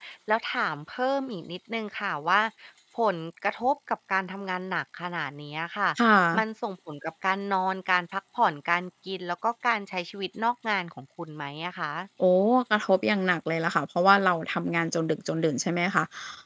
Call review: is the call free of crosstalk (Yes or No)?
Yes